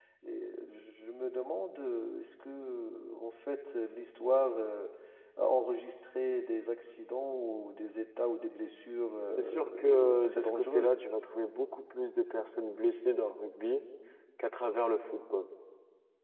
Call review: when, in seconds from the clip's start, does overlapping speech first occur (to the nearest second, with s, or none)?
9 s